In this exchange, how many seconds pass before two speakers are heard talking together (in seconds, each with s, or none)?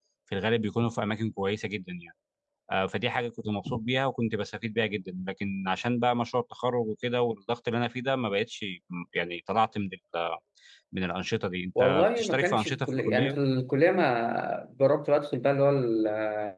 11.8 s